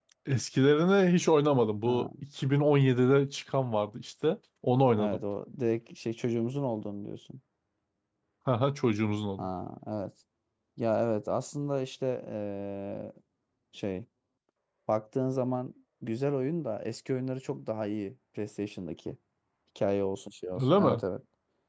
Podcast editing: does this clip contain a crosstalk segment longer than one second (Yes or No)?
No